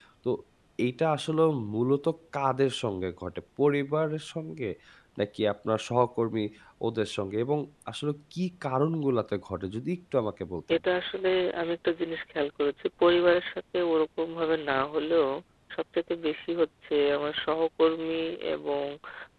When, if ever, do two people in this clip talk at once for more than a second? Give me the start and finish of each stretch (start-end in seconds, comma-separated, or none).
none